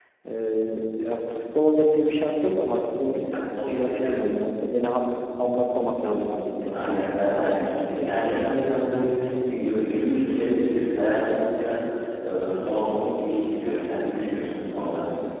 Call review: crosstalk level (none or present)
present